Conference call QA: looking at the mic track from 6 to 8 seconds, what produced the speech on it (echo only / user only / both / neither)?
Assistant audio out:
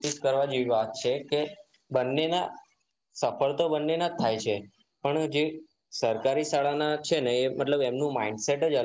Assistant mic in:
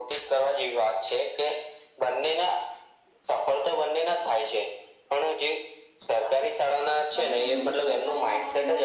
both